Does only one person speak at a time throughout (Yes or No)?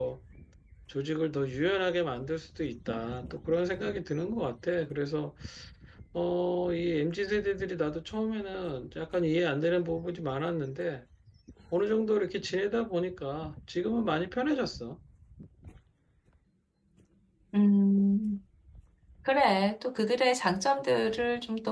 Yes